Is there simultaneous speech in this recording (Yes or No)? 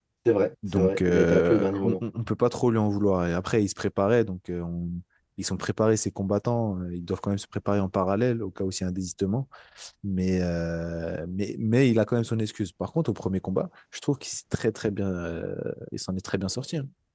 Yes